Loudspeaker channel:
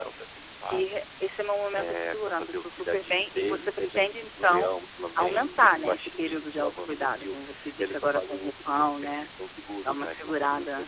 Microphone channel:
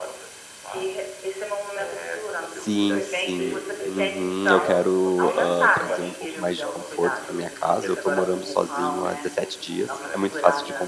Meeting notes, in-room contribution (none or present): present